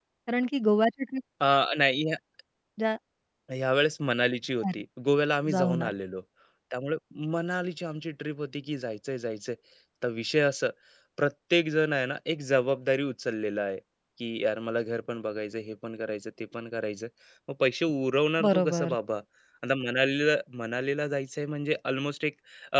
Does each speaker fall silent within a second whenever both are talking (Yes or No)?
Yes